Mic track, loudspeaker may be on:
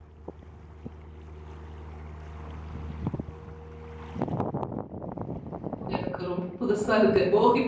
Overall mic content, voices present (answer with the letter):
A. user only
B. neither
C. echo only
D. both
A